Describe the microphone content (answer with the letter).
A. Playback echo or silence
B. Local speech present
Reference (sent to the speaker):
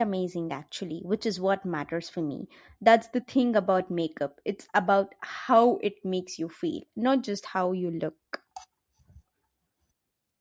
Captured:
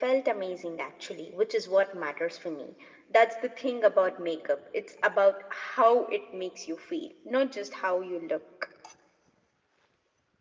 A